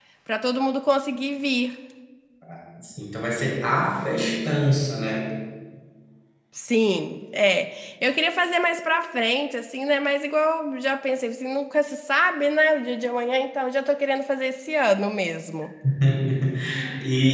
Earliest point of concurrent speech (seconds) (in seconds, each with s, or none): none